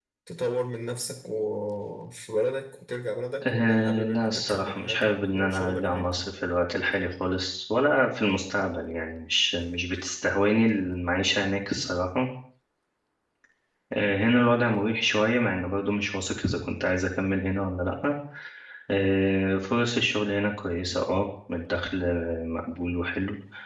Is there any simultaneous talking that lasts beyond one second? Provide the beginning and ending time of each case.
3.5-6.0

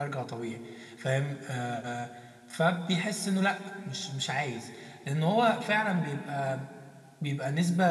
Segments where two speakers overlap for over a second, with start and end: none

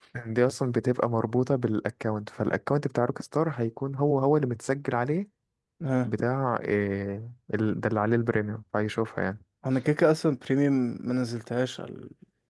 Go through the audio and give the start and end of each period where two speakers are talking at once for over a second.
none

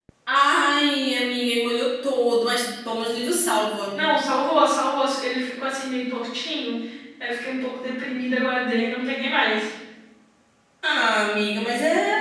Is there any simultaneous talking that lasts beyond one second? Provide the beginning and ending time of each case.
none

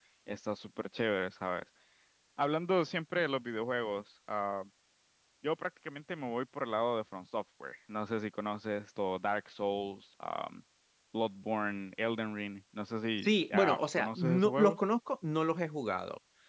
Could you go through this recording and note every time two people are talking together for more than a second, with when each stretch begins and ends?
13.2-14.8

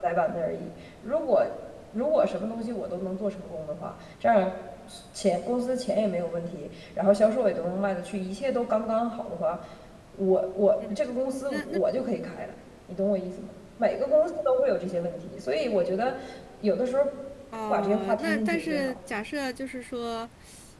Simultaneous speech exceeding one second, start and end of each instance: 17.7-19.0

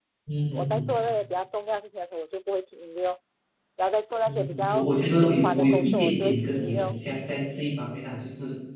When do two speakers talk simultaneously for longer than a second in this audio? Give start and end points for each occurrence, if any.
4.2-7.0

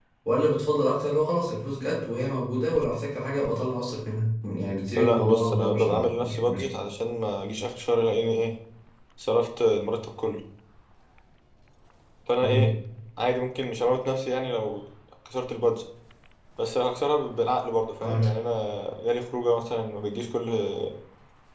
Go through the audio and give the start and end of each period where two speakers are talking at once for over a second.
5.0-6.6

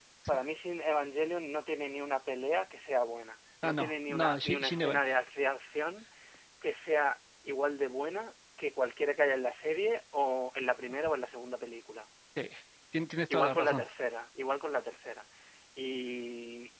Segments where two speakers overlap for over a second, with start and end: 3.6-5.0

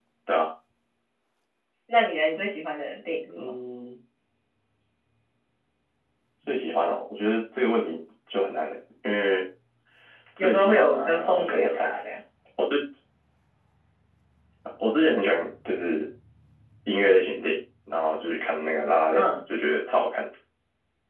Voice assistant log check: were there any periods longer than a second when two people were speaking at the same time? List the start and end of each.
10.4-11.9

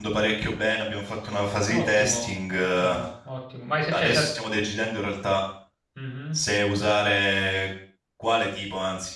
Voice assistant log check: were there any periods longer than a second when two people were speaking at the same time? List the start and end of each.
1.7-3.0

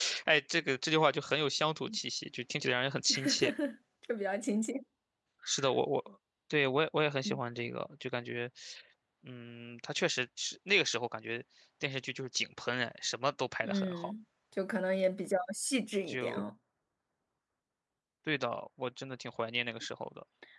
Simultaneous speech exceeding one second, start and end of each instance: none

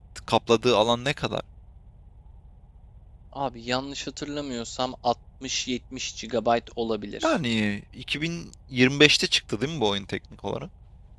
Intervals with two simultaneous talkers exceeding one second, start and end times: none

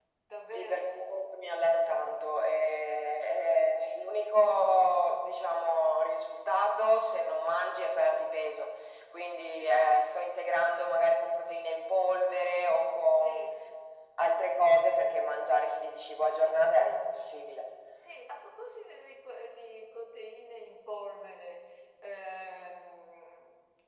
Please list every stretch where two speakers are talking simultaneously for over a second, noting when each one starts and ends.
none

